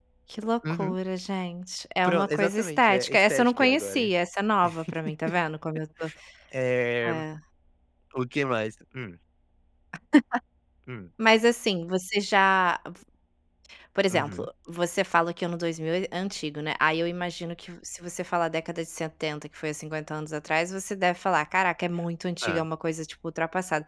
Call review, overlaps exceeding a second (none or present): present